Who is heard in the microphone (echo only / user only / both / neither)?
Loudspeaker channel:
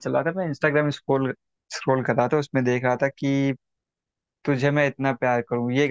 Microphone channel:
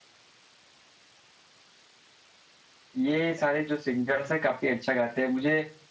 user only